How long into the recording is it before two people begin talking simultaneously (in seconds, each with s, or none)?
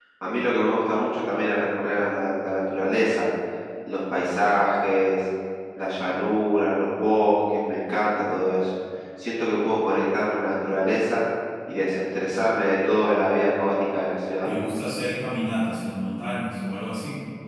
none